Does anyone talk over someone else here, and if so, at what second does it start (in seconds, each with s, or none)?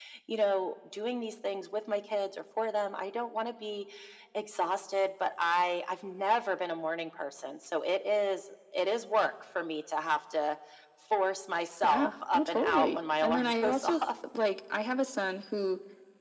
11.8 s